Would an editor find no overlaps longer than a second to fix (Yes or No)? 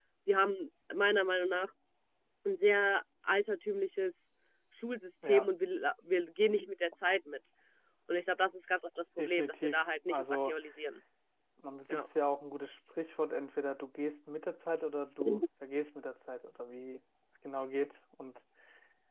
No